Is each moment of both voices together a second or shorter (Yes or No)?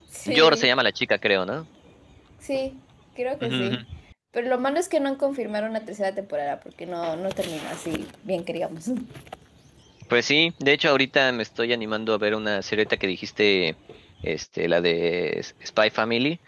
Yes